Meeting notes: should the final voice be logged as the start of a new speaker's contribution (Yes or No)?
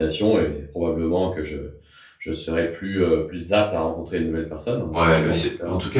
Yes